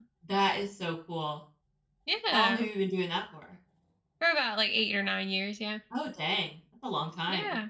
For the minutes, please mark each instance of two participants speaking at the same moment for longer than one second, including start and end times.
none

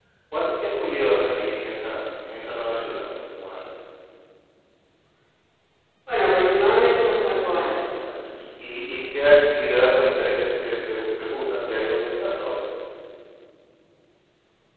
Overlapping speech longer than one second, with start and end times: none

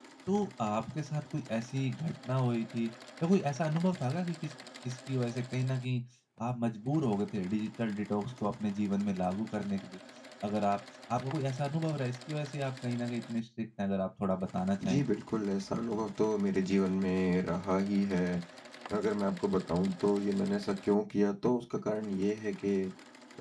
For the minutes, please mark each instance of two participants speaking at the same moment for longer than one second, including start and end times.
none

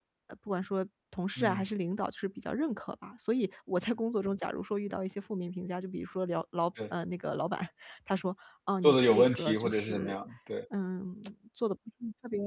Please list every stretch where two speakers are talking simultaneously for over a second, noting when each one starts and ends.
8.8-10.2

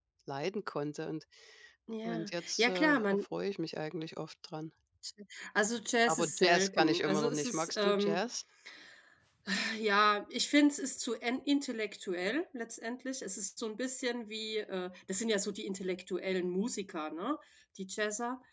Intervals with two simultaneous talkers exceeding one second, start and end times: 2.0-3.2, 6.1-8.2

